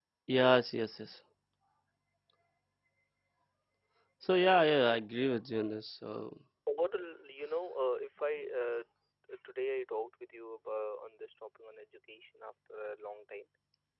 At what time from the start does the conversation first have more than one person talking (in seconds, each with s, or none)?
none